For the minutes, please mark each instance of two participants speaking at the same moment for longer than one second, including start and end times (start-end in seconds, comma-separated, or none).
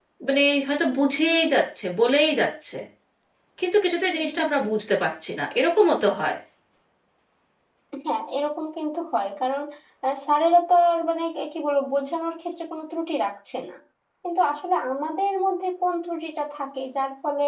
none